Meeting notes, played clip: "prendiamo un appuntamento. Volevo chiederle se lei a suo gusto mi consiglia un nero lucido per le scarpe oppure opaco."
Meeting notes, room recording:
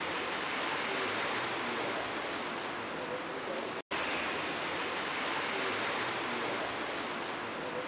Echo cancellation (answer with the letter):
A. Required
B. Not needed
B